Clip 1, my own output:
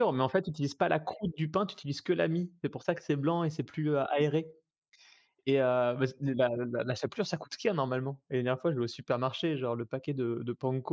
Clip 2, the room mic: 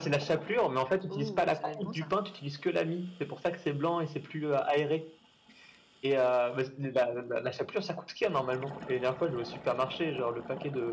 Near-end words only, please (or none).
Ouh, ça doit être bon, ça.